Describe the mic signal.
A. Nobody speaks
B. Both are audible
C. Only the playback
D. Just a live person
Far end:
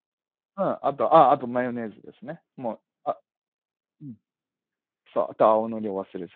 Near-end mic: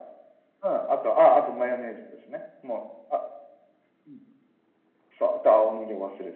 C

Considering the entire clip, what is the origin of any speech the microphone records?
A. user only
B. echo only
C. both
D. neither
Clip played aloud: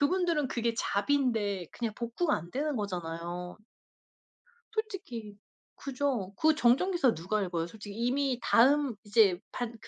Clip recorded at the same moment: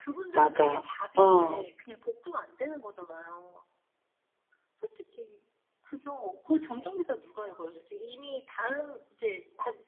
C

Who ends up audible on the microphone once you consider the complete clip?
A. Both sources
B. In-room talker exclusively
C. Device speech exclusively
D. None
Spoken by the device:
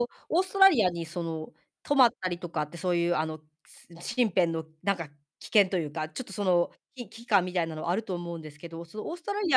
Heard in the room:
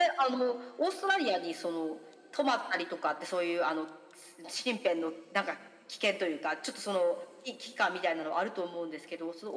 C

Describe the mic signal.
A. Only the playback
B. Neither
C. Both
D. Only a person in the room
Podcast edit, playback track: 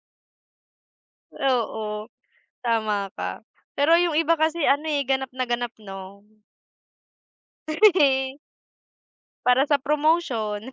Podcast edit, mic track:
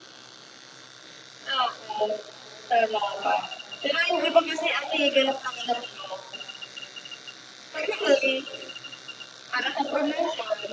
A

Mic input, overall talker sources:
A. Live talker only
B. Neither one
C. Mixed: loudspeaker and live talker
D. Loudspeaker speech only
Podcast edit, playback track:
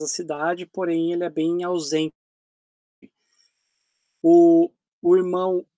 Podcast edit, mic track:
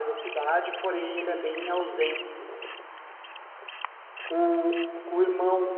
C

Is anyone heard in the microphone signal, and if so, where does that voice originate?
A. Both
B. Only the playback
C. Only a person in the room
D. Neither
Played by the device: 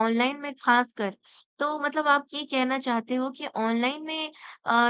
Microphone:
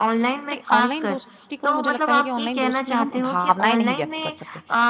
A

